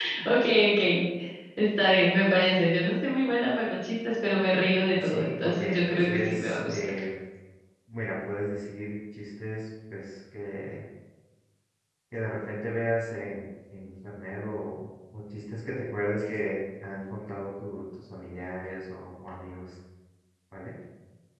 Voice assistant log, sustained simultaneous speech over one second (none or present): present